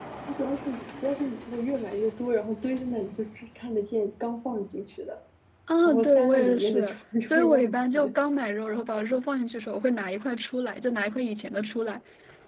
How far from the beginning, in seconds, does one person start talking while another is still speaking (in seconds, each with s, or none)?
5.8 s